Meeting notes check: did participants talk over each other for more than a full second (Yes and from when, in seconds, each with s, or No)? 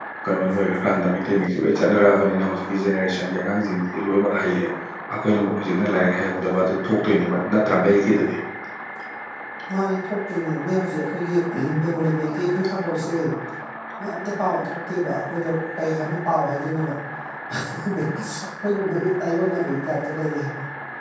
No